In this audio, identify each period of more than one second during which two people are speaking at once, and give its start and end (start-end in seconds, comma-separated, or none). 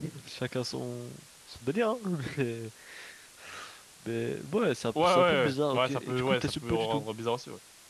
5.7-7.0